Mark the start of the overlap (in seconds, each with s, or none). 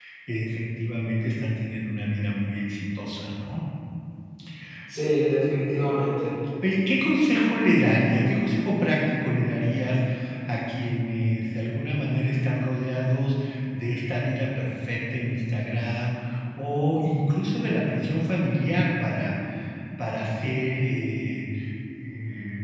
none